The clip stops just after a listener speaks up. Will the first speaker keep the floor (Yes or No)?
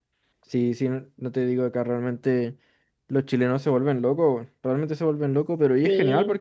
Yes